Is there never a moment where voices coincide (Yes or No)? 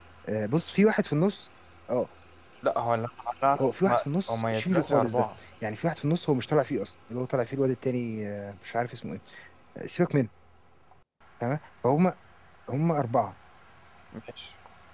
No